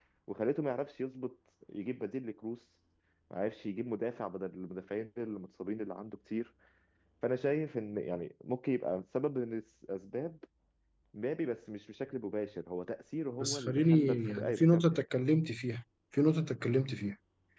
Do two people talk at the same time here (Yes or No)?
Yes